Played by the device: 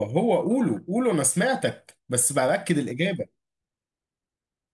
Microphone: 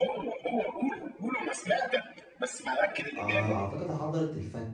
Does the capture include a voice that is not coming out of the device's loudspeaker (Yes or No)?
Yes